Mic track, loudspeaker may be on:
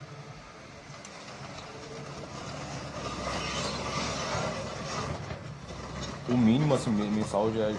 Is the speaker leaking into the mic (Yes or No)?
No